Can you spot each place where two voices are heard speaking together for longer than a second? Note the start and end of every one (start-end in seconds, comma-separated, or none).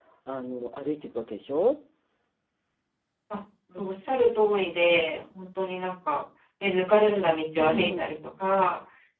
none